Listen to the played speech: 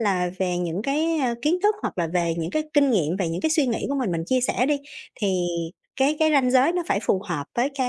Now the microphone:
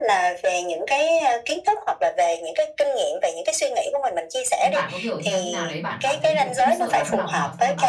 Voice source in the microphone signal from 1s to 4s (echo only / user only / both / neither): echo only